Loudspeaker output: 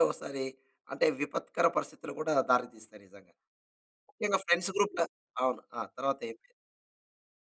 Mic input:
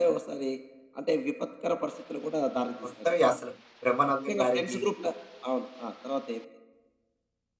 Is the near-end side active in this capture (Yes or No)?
Yes